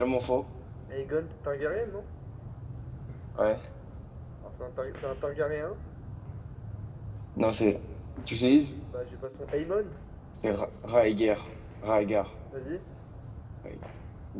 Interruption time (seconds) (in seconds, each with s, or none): none